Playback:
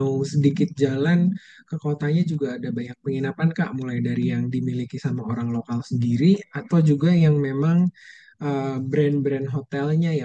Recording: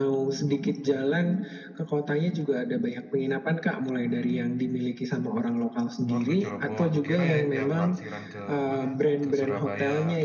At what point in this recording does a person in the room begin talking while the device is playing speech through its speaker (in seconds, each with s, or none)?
6.1 s